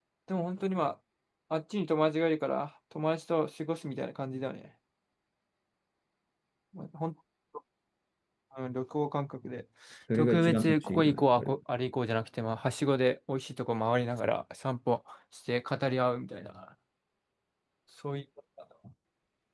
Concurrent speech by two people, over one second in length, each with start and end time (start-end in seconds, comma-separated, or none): 10.1-11.6